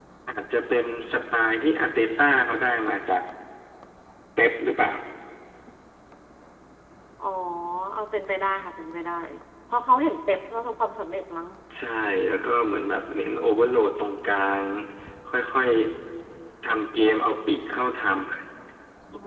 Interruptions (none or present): none